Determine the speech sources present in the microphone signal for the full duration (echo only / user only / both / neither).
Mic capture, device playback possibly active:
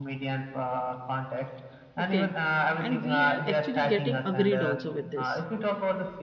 both